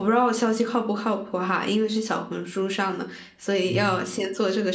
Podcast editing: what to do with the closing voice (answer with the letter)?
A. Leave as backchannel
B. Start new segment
A